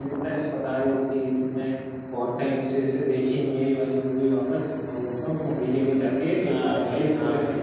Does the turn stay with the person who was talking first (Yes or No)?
No